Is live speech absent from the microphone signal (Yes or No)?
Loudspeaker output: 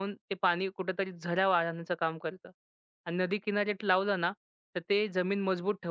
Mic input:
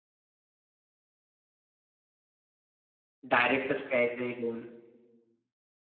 No